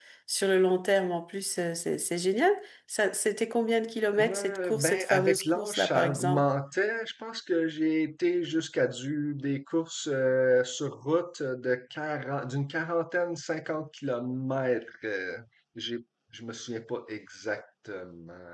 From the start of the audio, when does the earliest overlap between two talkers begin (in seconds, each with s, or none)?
4.1 s